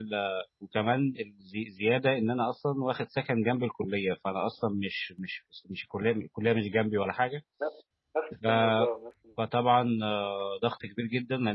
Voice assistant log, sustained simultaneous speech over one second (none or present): none